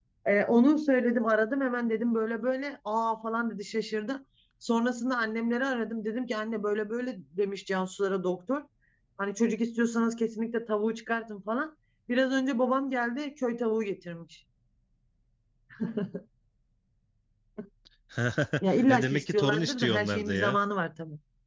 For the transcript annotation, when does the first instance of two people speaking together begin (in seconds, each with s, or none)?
18.9 s